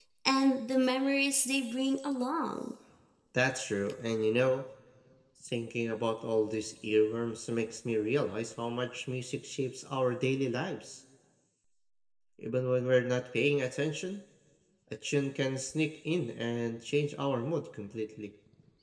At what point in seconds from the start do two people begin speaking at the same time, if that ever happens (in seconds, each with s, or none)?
none